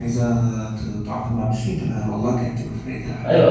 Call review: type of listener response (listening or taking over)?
taking over